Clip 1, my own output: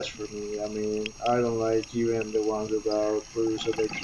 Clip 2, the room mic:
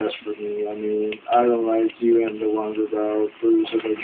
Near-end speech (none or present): none